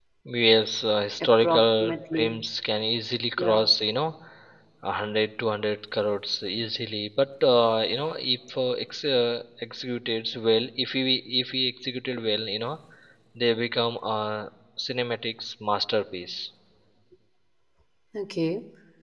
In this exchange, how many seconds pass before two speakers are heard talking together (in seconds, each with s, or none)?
1.2 s